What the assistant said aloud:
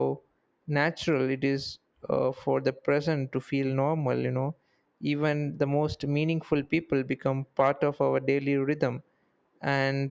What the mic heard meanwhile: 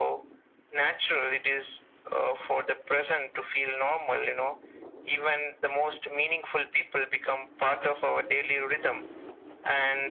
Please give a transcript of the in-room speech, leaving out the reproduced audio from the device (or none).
none